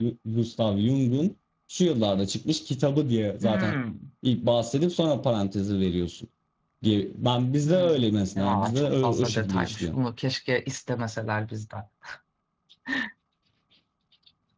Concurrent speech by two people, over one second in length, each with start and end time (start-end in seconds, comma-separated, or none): 8.4-10.0